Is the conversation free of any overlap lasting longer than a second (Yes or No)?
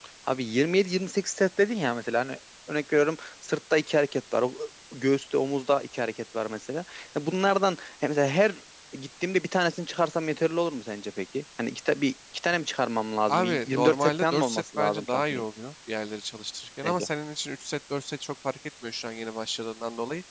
No